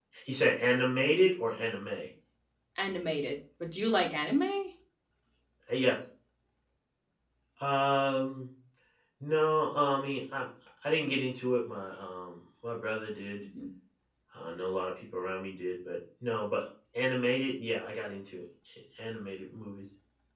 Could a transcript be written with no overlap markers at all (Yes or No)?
Yes